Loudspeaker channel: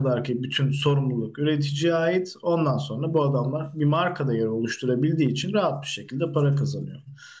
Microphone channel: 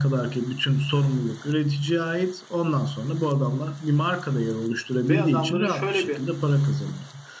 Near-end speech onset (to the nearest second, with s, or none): 5 s